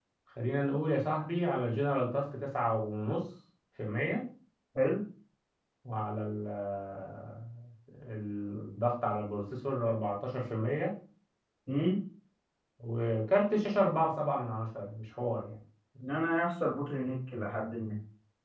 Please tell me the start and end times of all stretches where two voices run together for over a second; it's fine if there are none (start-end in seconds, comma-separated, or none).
none